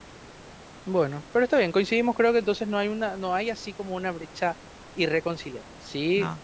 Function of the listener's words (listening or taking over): listening